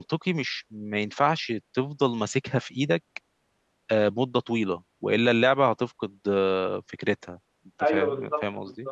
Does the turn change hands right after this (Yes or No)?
Yes